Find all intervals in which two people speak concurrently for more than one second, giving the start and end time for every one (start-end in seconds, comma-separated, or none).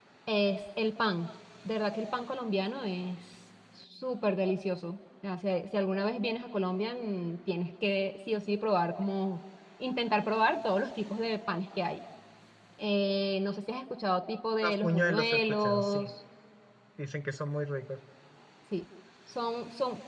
14.6-16.1